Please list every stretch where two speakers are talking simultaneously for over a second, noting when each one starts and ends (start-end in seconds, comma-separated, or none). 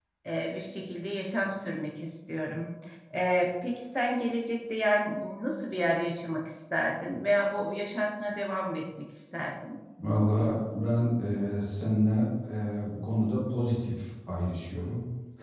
none